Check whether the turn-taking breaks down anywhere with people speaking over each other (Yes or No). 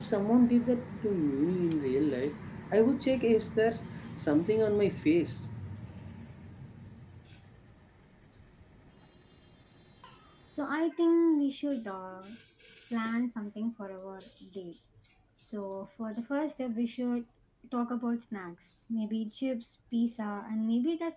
No